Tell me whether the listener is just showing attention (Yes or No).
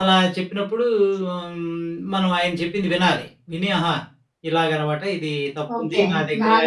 No